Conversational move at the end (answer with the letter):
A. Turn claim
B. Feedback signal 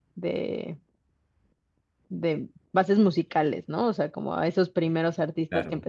B